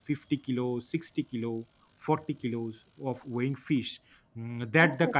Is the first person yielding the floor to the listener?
No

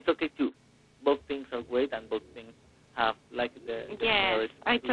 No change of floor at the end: No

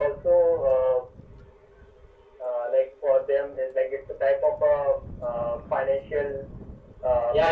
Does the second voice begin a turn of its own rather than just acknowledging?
Yes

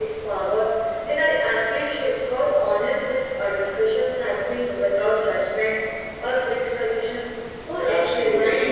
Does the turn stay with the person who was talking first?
No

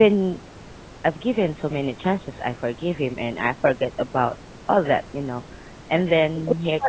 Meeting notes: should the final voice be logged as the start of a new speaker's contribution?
Yes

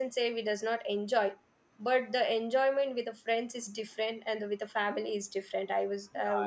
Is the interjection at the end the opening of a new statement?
Yes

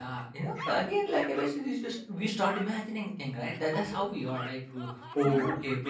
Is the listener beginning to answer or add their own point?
No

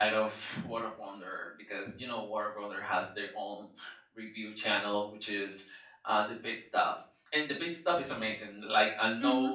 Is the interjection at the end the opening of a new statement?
No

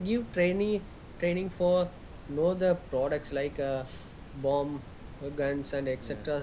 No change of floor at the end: Yes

